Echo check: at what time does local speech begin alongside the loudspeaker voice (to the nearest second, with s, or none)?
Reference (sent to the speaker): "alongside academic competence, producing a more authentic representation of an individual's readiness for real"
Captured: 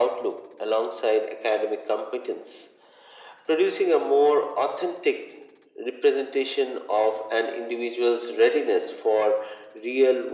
none